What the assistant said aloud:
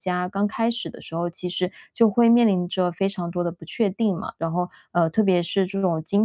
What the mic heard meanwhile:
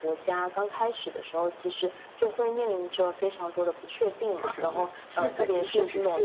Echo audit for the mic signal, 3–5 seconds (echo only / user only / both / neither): both